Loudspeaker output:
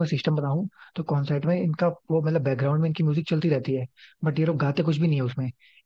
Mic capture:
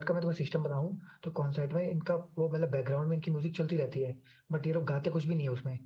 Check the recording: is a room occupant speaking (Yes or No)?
No